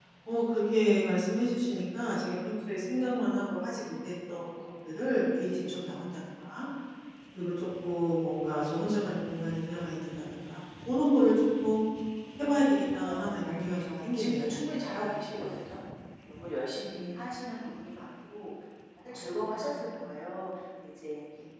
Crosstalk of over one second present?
Yes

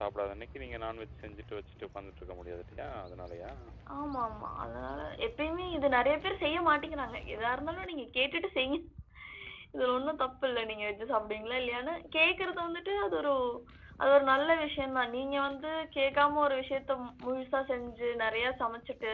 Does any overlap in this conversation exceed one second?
No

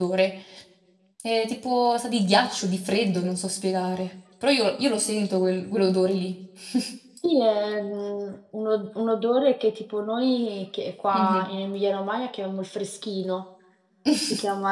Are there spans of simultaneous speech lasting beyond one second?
No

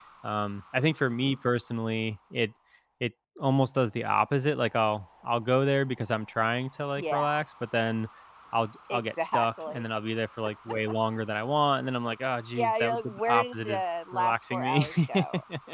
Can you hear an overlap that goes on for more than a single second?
Yes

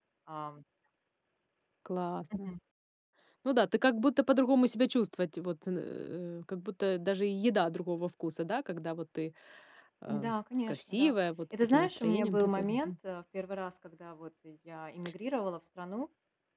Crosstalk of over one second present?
Yes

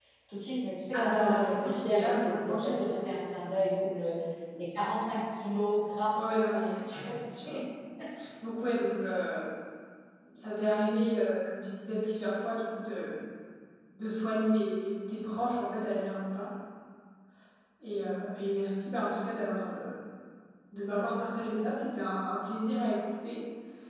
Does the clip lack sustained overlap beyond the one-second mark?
No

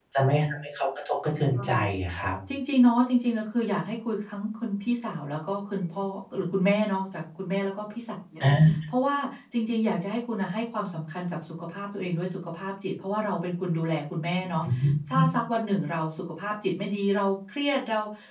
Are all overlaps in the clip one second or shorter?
Yes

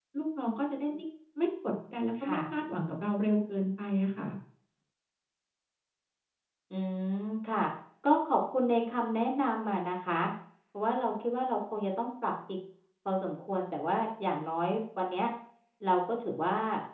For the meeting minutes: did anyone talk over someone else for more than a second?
No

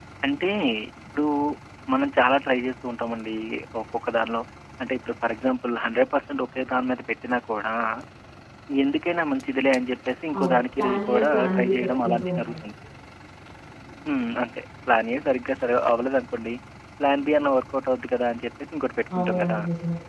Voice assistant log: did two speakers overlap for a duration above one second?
Yes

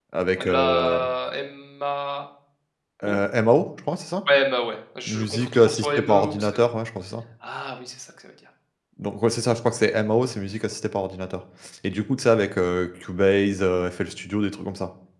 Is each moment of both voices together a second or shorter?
No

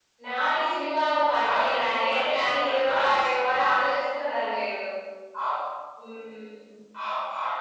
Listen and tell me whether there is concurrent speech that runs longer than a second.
Yes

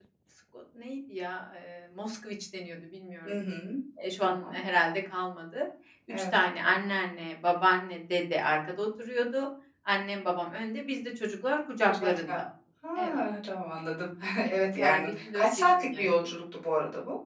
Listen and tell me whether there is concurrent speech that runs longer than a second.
Yes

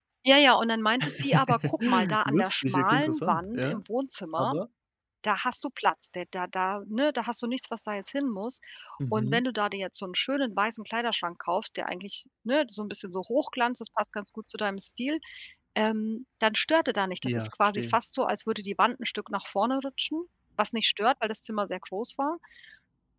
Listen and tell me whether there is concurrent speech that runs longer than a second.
Yes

